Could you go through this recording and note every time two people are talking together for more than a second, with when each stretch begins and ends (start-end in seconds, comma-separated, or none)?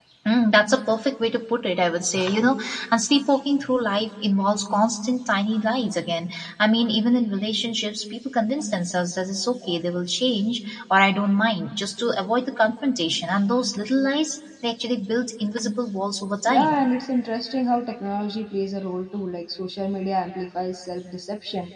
none